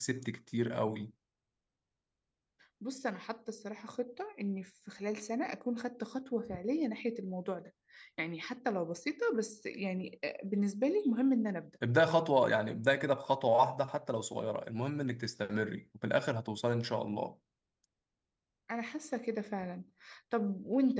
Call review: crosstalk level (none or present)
none